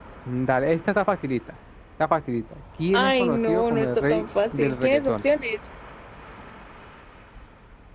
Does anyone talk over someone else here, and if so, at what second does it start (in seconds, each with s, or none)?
2.9 s